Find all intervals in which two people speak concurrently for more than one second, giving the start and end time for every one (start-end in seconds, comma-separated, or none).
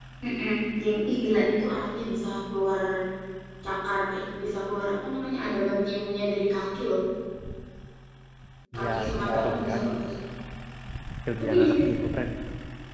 8.8-9.9